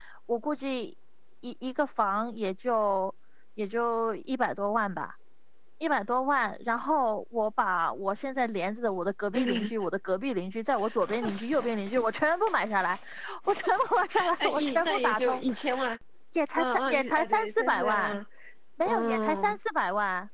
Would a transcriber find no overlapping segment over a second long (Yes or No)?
No